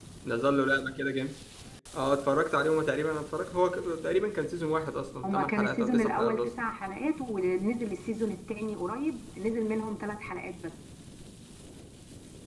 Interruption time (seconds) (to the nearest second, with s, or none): 5 s